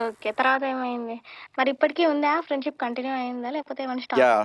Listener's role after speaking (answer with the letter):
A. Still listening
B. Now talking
B